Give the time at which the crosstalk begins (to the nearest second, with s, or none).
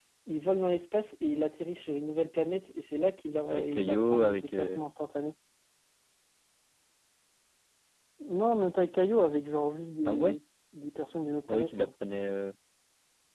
3 s